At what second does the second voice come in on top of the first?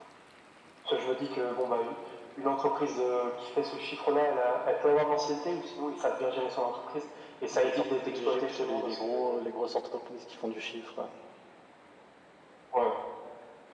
7.5 s

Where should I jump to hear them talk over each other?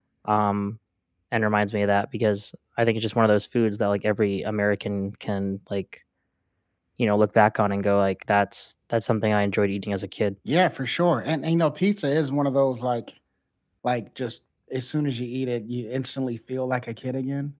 none

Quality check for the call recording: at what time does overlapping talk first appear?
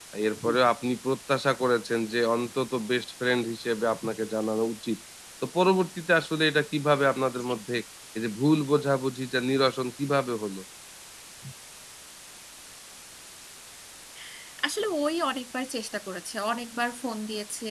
none

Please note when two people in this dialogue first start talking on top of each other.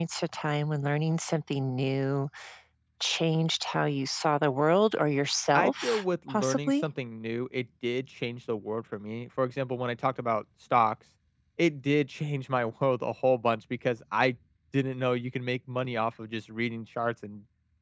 5.5 s

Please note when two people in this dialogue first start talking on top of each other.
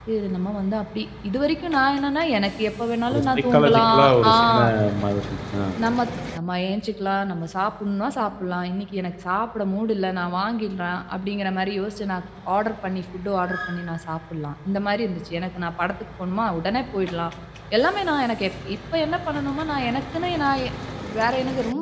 3.1 s

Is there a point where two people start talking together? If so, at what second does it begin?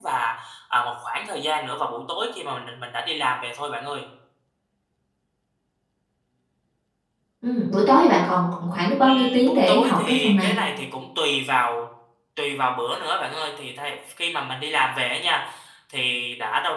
9.0 s

